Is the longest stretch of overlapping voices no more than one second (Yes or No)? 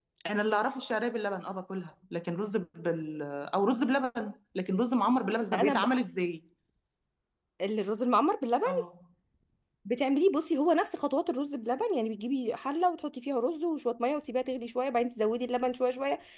Yes